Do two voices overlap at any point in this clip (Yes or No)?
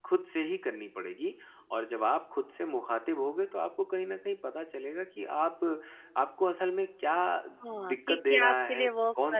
Yes